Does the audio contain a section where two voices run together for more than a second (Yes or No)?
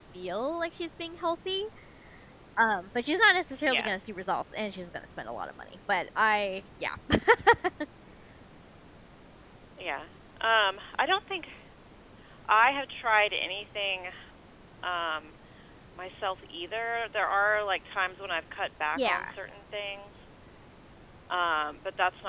No